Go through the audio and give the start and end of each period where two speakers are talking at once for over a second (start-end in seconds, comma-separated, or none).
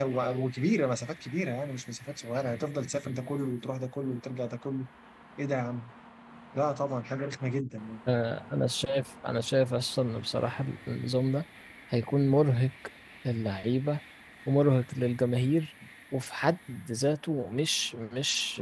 none